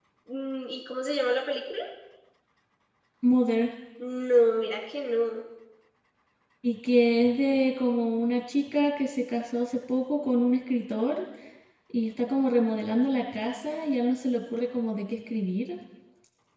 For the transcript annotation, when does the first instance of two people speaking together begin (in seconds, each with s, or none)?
none